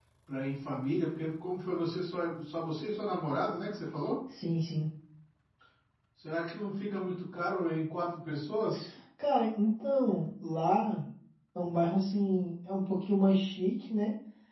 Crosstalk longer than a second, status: none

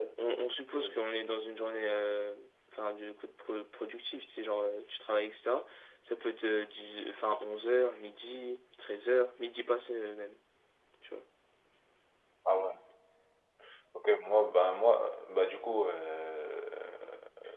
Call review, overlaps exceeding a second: none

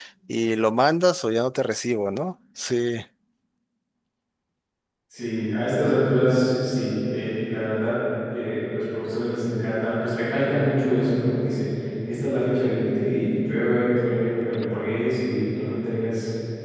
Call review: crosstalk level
none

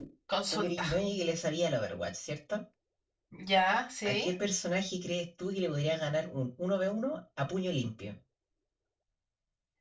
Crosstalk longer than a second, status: none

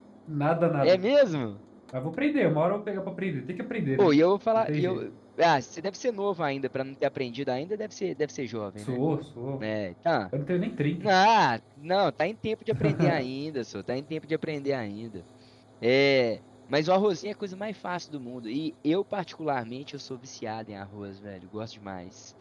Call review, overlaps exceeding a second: none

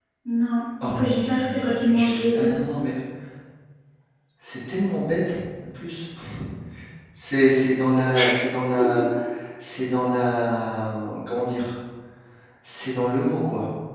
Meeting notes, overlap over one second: present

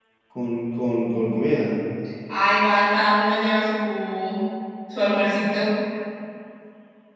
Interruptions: none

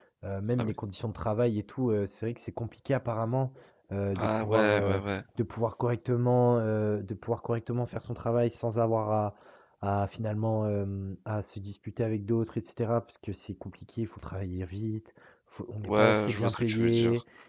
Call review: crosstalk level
present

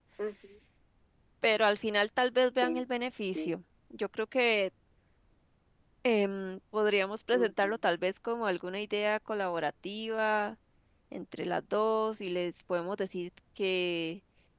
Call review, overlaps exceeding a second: none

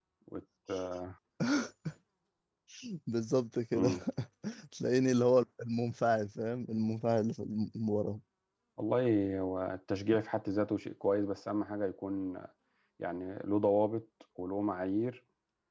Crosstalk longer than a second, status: none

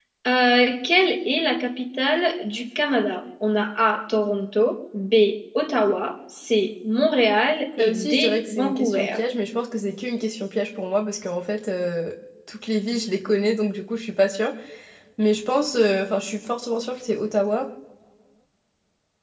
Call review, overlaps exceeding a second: present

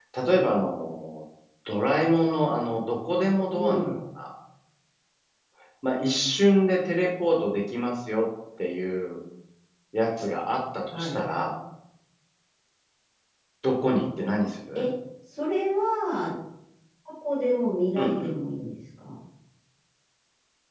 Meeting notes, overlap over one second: none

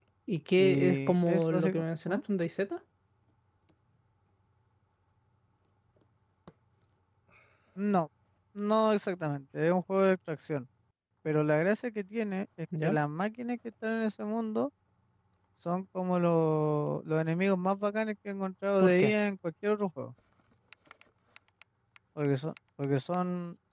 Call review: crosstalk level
present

